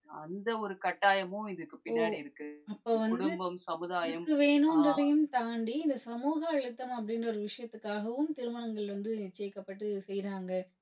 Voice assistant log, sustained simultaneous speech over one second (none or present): none